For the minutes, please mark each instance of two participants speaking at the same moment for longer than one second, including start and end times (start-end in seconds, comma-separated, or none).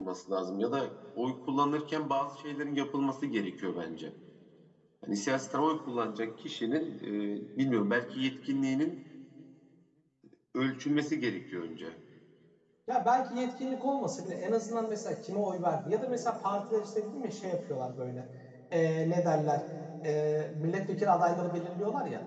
none